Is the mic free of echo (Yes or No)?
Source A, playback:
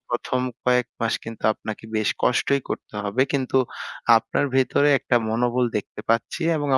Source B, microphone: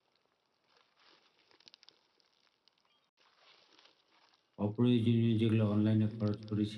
Yes